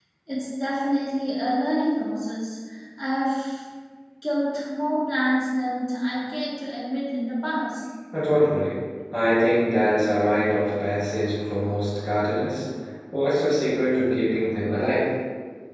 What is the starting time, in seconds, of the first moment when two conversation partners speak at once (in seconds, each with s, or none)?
none